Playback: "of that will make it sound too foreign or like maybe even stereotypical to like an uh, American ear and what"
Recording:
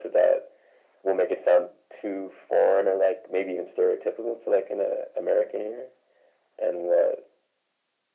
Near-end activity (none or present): none